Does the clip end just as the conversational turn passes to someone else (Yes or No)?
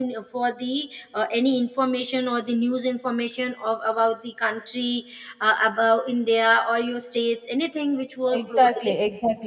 Yes